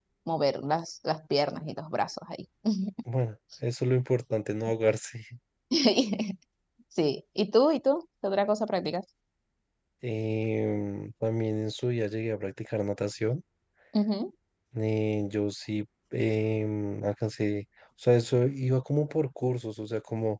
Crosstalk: none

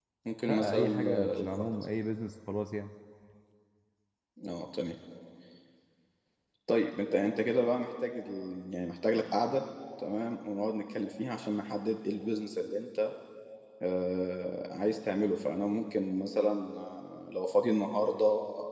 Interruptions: present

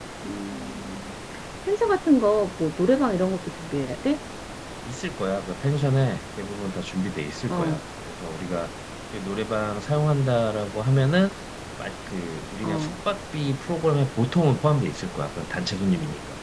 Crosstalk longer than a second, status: none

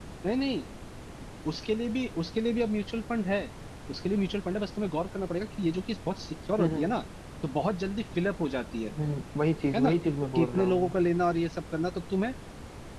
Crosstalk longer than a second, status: none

